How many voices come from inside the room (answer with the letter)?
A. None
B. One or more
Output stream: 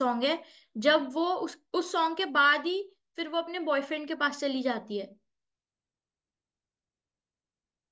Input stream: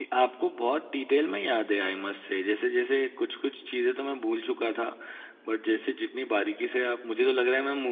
B